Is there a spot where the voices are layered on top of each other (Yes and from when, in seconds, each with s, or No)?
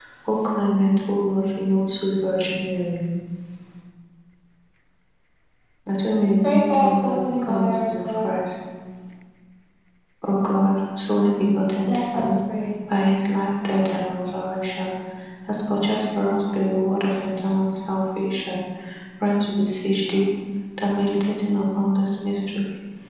Yes, from 6.4 s